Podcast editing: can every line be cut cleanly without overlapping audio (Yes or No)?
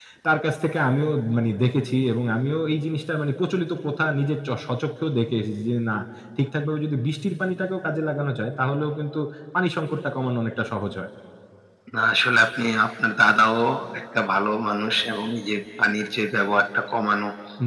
Yes